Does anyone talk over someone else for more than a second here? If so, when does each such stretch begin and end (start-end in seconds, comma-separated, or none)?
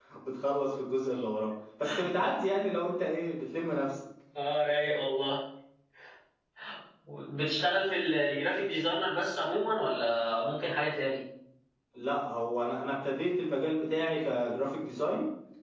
none